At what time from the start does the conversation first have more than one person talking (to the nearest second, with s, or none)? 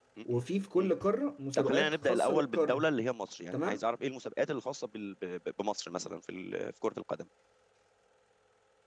2 s